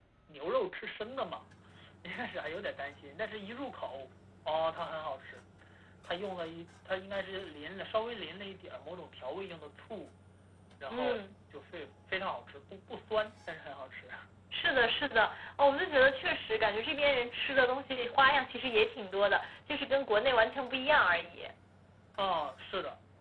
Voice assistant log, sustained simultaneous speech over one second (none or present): none